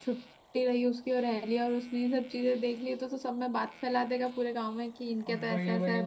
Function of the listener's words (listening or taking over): taking over